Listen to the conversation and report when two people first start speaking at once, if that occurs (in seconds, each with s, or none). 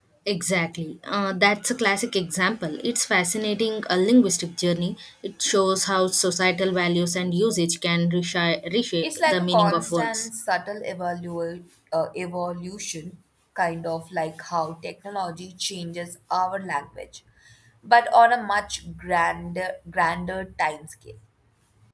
9.0 s